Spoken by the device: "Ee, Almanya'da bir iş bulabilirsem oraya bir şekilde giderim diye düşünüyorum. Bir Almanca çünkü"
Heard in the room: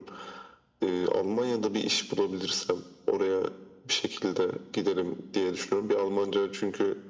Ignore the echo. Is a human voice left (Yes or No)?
No